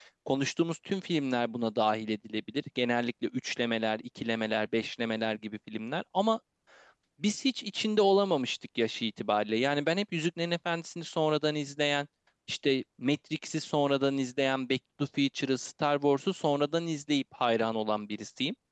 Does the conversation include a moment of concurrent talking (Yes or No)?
No